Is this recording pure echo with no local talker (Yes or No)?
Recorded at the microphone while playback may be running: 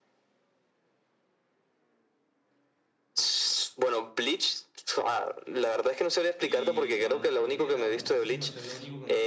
No